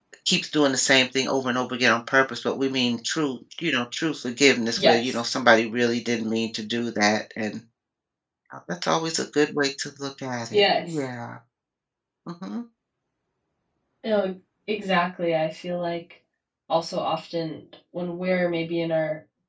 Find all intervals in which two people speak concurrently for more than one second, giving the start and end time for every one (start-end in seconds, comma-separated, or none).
none